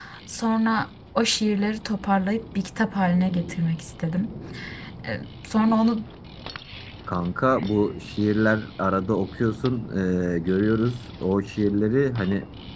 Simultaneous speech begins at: none

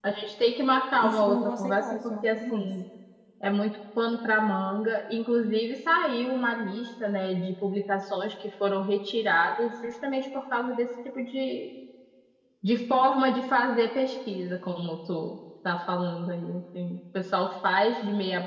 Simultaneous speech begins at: 1.0 s

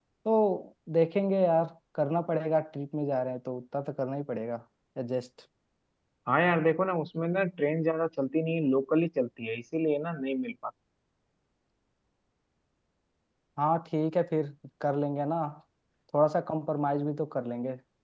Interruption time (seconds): none

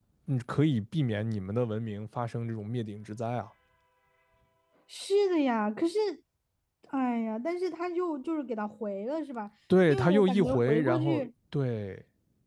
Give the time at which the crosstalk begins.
9.9 s

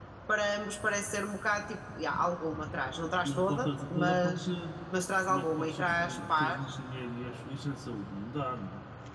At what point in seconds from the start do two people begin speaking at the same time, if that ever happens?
3.2 s

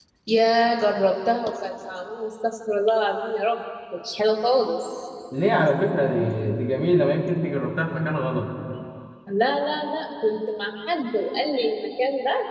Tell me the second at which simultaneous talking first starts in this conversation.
none

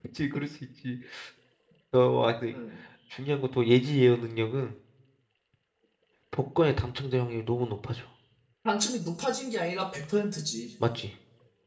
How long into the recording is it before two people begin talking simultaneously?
none

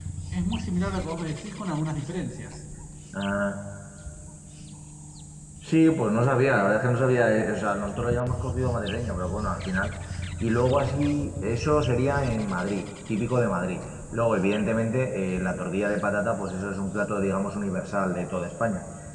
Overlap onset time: none

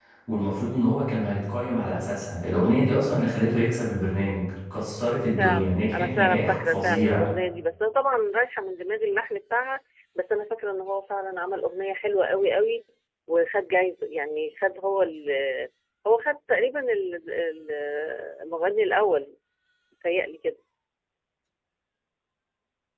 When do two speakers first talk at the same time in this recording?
5.4 s

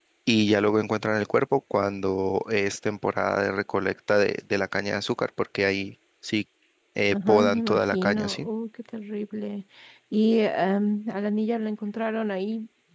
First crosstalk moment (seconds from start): 7.1 s

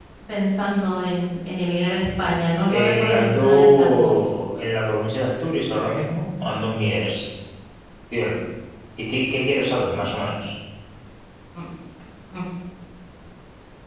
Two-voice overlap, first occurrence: 2.7 s

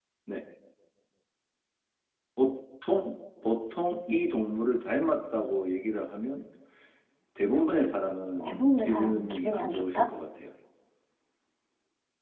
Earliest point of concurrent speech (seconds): 8.4 s

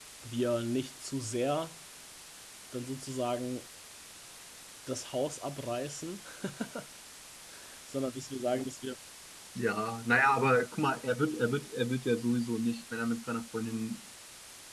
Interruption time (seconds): none

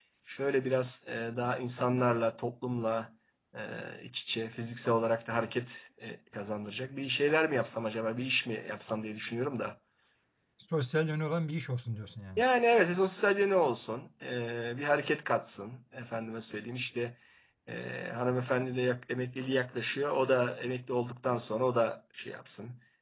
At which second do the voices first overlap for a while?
none

